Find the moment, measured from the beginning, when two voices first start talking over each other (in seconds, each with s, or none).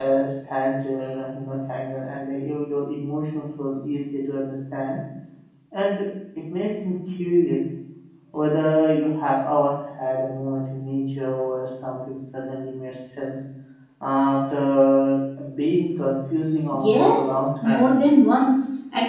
16.7 s